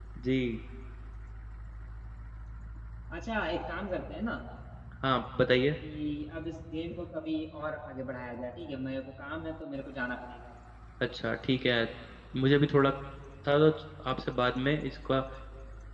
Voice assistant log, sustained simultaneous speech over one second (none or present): none